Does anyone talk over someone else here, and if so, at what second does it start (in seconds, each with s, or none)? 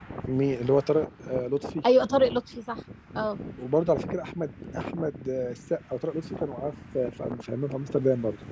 none